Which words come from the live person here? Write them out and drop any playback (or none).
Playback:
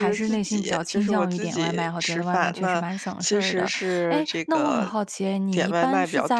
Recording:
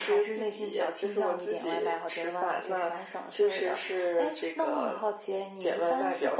none